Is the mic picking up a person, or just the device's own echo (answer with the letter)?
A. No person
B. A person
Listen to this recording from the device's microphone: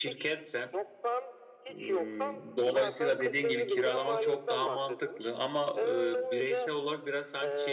B